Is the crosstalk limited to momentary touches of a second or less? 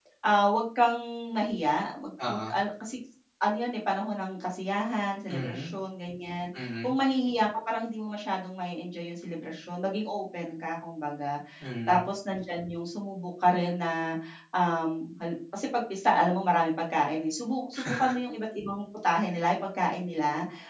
Yes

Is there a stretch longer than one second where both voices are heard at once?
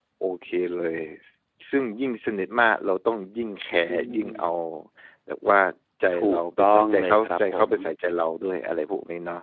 Yes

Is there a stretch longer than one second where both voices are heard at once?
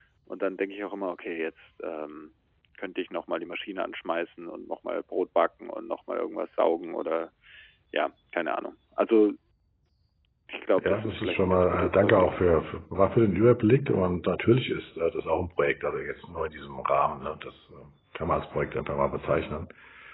Yes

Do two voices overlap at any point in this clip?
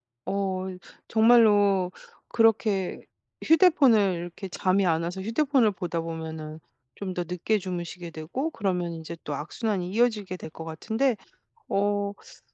No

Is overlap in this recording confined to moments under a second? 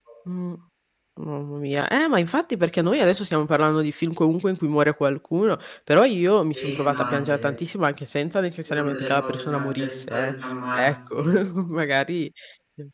No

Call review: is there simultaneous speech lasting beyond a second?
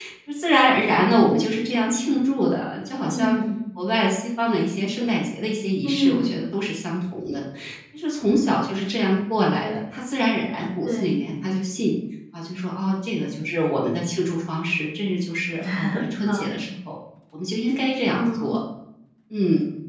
No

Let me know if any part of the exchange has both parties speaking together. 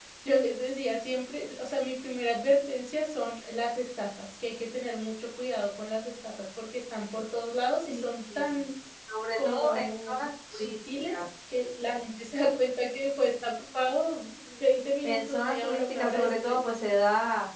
Yes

